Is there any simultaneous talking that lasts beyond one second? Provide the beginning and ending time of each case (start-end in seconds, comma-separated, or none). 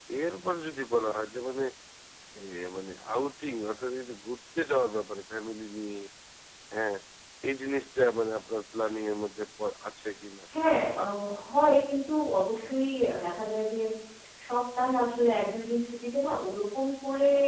none